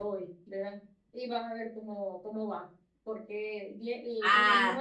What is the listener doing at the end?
listening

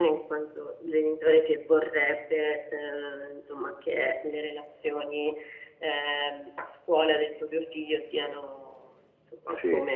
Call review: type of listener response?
listening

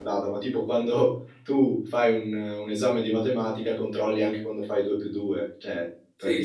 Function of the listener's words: taking over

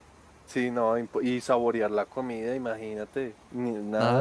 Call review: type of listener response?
taking over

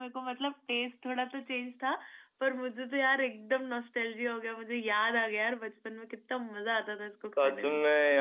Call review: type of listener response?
taking over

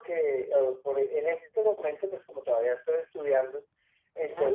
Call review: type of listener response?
listening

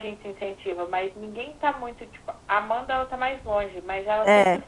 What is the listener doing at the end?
listening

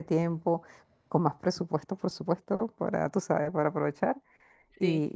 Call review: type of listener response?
listening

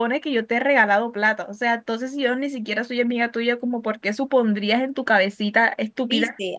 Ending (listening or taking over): taking over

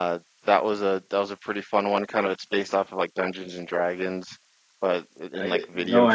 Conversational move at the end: taking over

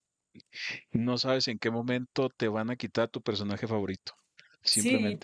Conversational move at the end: taking over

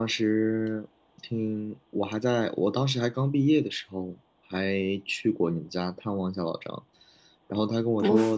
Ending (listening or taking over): listening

